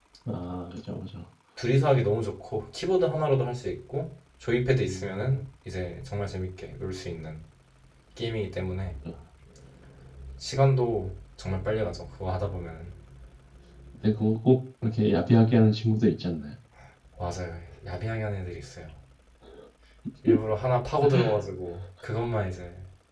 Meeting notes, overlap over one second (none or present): none